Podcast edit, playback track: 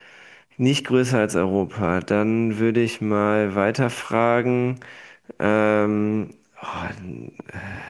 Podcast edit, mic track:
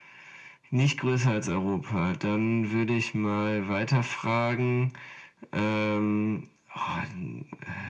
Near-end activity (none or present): none